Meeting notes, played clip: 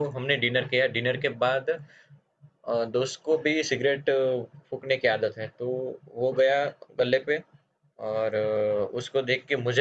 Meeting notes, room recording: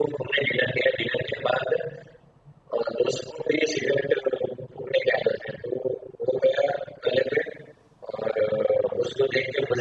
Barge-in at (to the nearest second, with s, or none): none